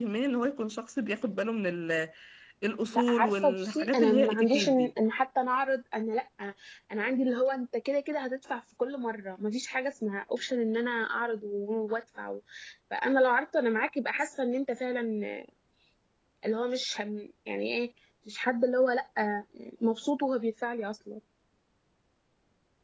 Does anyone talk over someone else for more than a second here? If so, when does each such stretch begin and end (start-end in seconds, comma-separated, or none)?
2.9-4.9